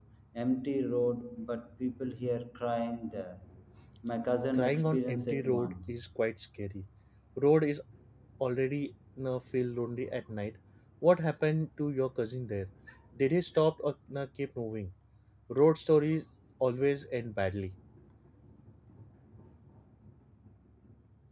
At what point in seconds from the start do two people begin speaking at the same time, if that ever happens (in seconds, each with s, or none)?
4.5 s